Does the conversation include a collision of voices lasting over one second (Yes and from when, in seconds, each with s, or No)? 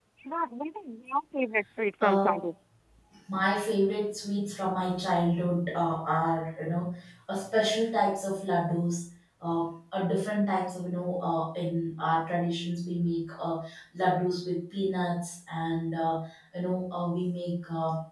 No